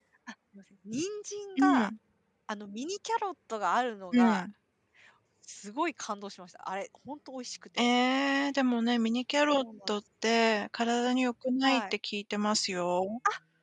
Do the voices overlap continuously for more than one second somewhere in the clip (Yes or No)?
No